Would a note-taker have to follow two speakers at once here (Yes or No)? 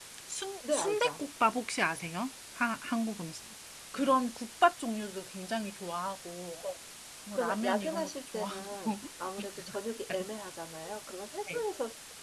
Yes